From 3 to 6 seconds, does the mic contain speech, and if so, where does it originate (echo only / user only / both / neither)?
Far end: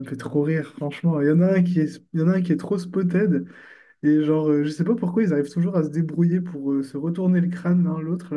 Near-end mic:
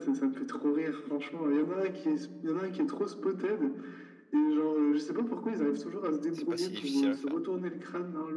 echo only